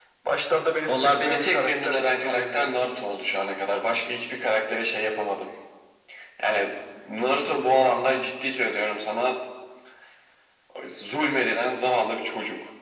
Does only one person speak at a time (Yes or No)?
No